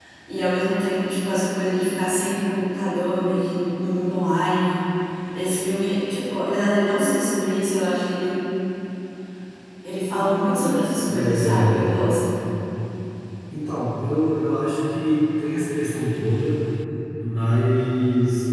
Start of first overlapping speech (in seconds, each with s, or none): 10.2 s